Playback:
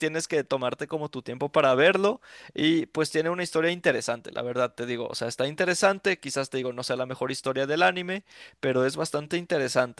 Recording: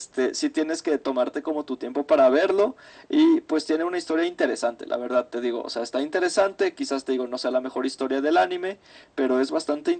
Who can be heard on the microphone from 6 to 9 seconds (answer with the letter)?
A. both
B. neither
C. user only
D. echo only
D